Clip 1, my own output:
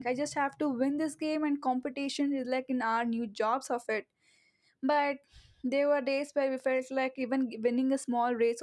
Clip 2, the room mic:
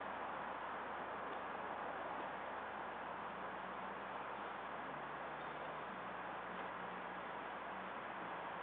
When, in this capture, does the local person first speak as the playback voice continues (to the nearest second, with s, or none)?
none